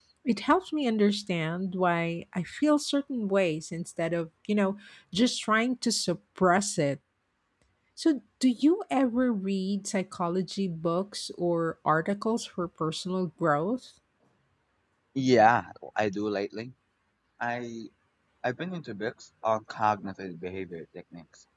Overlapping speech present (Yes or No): No